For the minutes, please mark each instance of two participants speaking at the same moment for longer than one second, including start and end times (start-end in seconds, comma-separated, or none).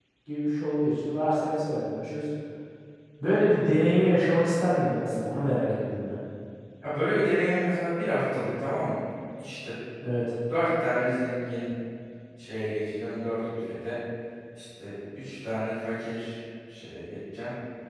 none